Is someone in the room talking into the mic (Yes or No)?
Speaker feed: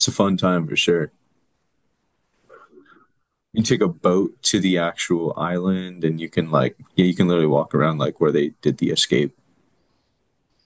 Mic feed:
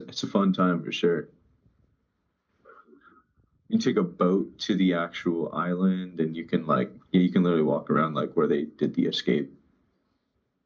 No